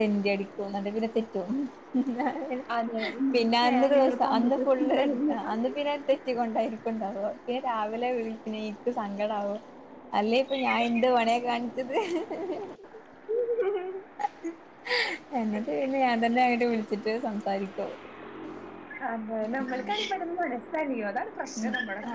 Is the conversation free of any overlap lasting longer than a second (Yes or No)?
No